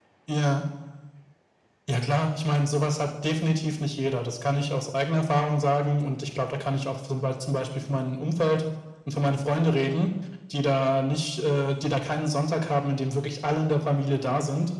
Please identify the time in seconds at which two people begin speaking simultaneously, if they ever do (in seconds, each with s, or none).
none